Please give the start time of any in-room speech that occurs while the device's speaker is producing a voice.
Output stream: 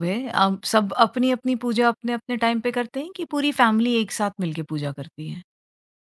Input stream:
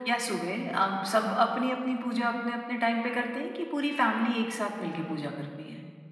none

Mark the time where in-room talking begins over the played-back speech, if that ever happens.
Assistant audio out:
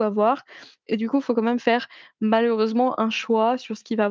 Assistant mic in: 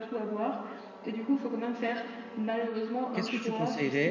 3.1 s

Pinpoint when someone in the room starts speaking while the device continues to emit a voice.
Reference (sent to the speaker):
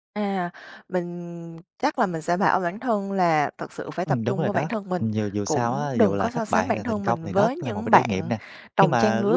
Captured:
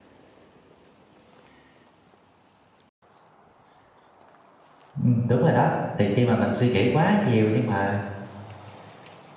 5.0 s

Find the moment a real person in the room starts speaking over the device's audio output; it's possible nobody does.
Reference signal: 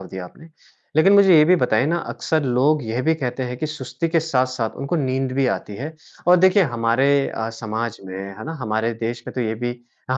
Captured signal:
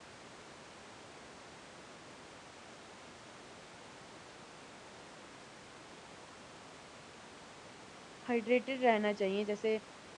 8.3 s

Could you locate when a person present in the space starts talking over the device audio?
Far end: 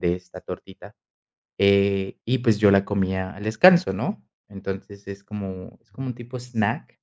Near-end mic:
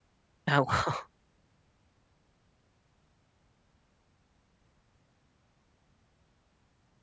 0.5 s

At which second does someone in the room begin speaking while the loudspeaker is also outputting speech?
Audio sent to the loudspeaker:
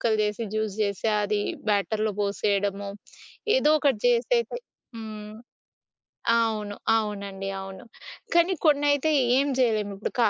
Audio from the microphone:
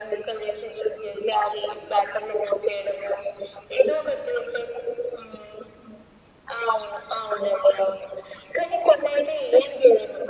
none

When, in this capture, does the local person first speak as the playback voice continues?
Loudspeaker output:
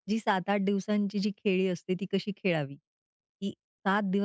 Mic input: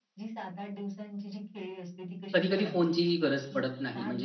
2.3 s

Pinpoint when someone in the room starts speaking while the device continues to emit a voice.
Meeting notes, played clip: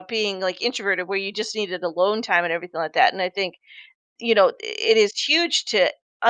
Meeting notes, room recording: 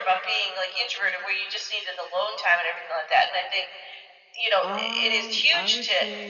4.6 s

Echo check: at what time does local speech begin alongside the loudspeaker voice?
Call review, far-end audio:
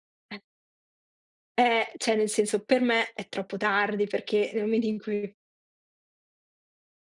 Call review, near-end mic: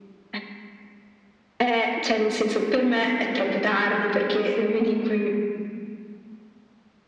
none

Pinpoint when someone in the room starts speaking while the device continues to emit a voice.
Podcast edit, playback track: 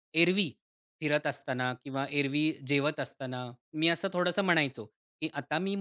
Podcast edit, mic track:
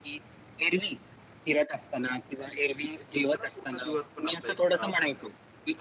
3.1 s

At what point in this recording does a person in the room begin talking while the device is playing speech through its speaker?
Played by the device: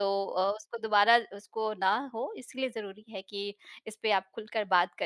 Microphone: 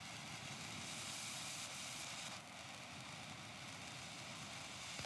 none

